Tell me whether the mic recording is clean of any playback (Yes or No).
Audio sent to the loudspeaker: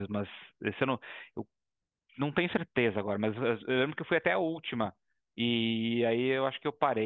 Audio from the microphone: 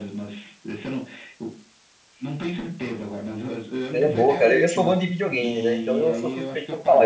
No